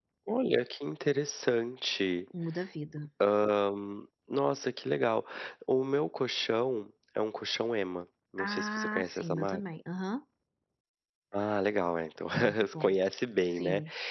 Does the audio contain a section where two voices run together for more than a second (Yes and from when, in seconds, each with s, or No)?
Yes, from 8.4 s